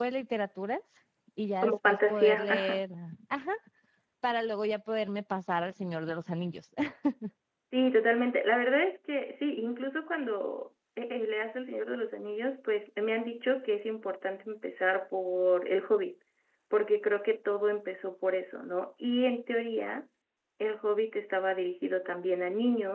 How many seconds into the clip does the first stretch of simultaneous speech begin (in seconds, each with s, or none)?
1.6 s